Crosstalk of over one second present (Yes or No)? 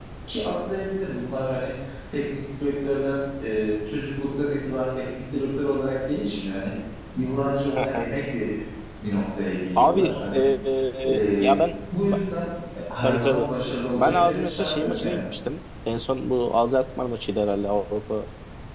Yes